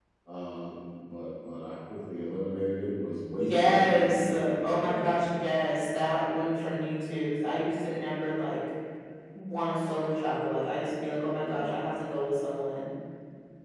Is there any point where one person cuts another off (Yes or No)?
Yes